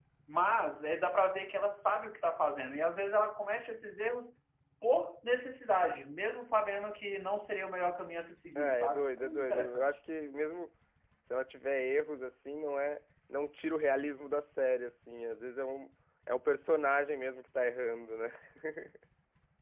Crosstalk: present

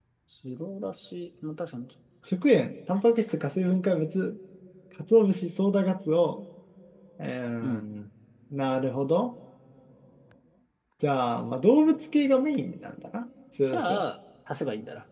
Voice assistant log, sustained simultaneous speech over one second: none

